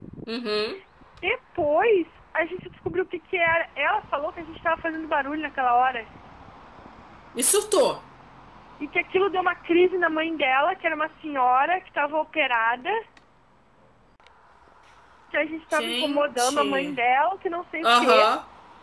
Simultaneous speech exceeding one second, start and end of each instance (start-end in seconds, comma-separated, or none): 15.7-16.9